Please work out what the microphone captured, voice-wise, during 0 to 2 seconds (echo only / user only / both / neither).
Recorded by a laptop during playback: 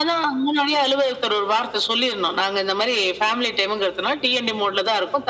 echo only